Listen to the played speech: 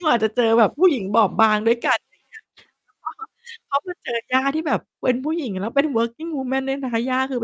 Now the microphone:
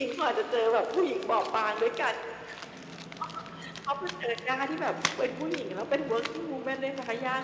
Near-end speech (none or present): none